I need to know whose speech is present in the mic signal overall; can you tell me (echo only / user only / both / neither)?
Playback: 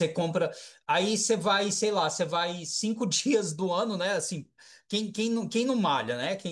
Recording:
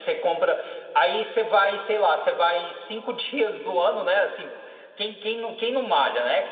echo only